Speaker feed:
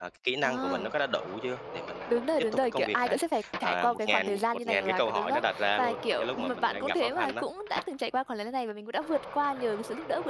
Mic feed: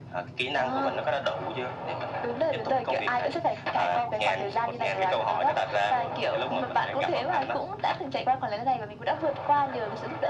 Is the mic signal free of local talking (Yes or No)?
Yes